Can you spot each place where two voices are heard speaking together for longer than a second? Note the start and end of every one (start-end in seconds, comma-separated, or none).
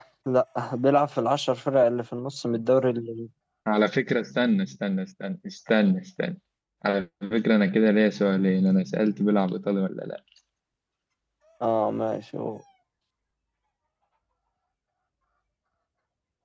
none